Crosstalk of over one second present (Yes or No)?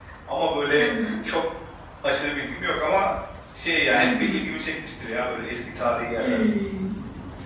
No